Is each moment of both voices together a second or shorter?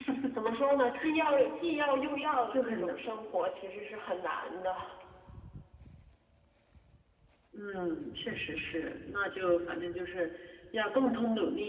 Yes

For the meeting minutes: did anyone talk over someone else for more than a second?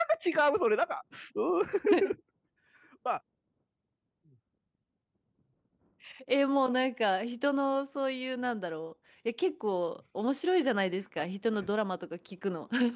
No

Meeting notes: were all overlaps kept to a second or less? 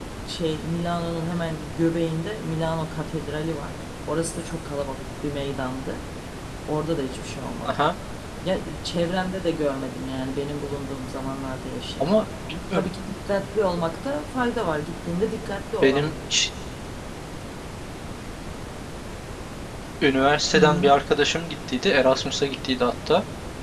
Yes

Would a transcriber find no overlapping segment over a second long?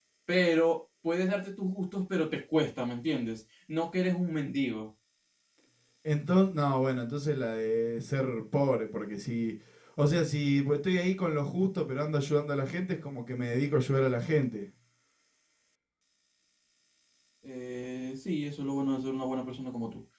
Yes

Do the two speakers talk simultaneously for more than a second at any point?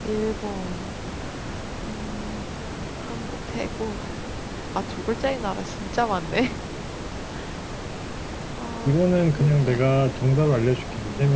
Yes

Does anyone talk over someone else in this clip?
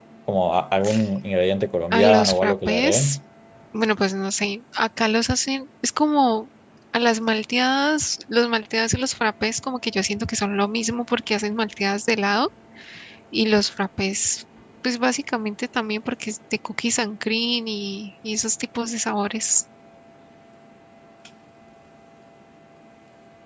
Yes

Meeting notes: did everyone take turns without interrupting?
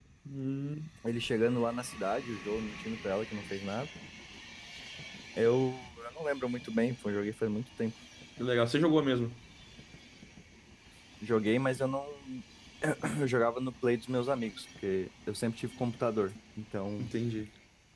Yes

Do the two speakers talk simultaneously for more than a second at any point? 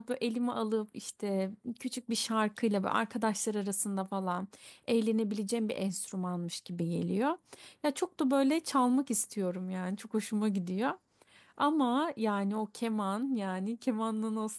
No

